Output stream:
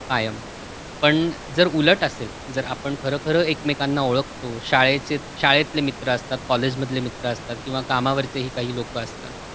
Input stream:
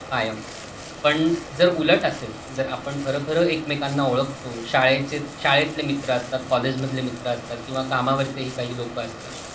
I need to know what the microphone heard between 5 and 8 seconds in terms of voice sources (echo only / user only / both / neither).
echo only